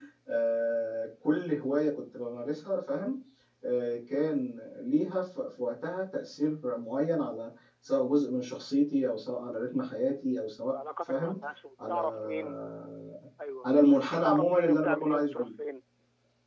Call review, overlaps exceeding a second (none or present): present